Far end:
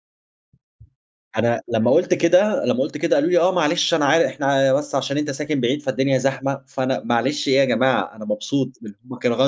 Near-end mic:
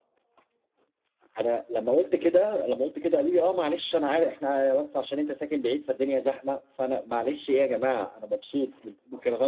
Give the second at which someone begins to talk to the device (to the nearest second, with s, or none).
none